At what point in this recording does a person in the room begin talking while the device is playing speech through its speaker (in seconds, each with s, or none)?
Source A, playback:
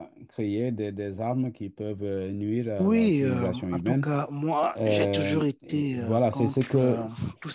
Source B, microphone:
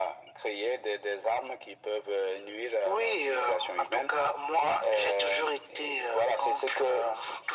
none